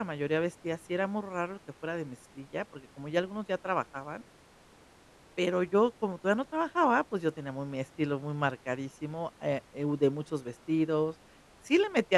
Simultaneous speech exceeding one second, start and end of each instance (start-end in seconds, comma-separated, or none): none